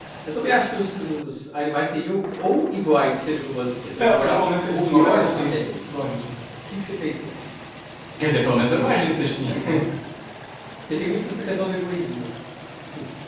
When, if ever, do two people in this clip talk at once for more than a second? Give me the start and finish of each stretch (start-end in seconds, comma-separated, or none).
4.0-5.7